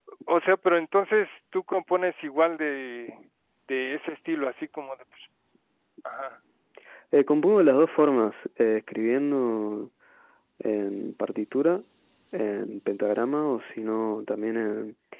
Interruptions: none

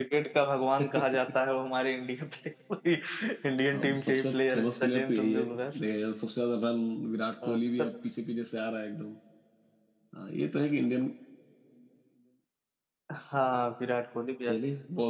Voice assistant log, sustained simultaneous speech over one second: present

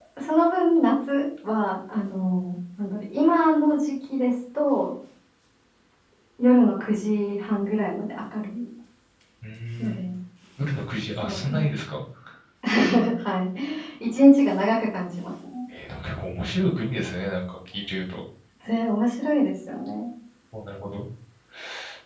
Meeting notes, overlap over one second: none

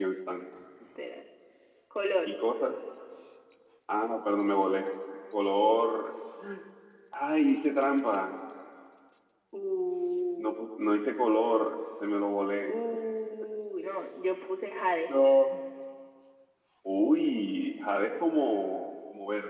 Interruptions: none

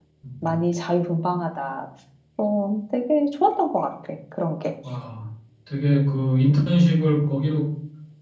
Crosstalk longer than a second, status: none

